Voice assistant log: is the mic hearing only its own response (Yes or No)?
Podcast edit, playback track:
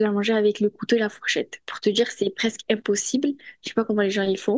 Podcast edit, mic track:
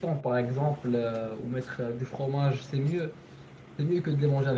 No